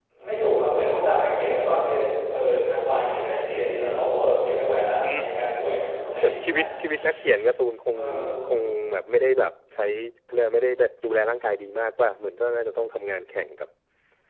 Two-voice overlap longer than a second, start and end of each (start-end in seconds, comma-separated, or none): none